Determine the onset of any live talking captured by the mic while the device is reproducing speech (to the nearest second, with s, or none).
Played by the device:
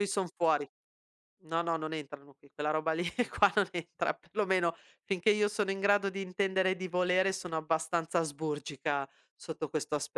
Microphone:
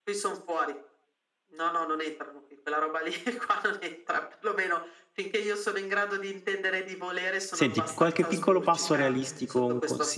8 s